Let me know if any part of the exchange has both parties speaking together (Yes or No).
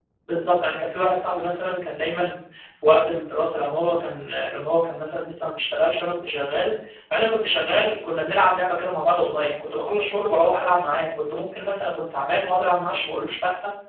No